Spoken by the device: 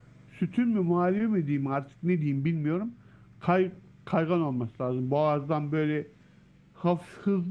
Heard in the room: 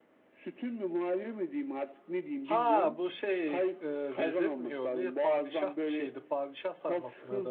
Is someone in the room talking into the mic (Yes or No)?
Yes